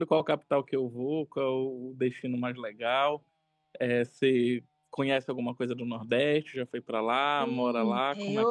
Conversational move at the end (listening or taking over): taking over